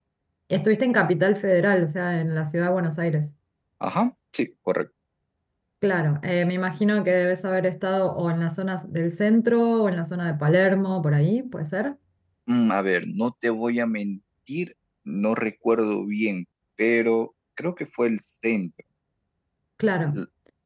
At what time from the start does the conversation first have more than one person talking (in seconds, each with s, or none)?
none